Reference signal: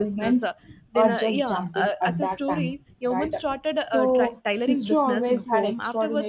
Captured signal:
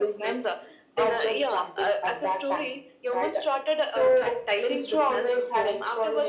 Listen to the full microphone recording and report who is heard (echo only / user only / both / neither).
echo only